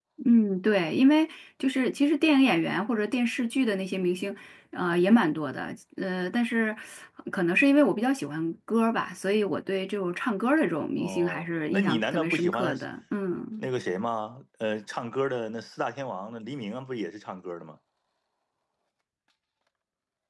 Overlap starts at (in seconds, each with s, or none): 11.0 s